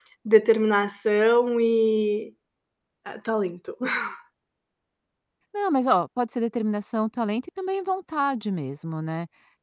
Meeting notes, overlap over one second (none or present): none